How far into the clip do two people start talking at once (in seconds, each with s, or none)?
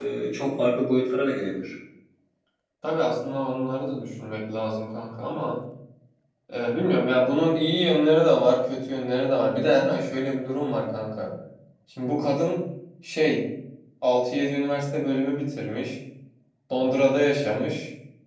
none